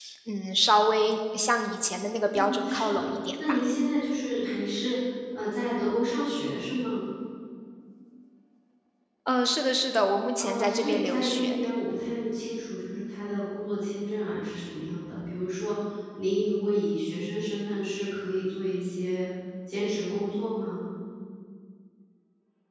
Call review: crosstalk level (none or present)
present